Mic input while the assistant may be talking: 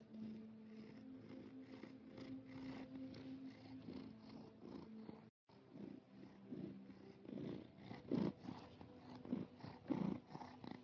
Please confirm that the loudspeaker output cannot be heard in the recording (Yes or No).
Yes